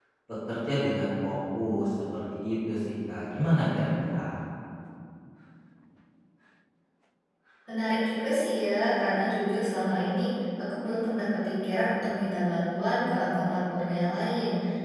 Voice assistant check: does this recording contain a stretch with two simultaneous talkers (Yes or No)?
No